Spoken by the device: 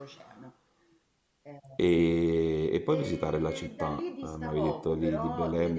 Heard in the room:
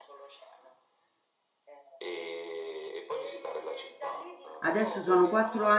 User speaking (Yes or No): Yes